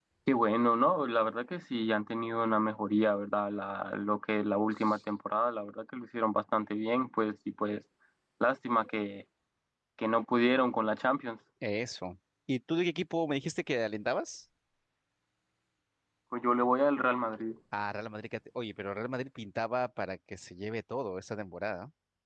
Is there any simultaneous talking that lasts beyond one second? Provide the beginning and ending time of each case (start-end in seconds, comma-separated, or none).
none